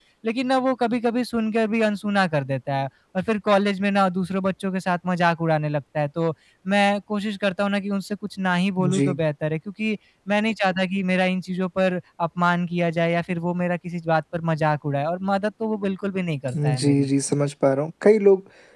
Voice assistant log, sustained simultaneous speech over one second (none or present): none